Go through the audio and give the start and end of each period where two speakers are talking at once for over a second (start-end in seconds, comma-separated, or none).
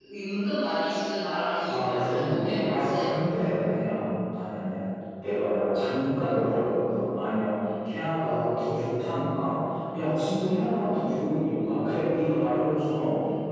1.7-3.5